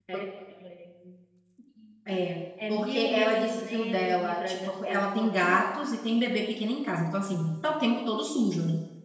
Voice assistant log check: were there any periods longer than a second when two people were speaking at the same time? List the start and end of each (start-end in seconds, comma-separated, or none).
2.7-5.7